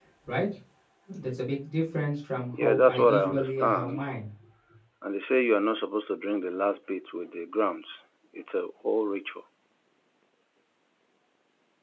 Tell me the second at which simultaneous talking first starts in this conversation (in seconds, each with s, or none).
2.5 s